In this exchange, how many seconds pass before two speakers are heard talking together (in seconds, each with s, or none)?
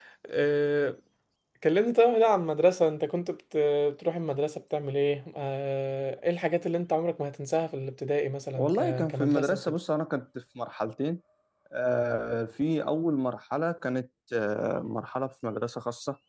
8.6 s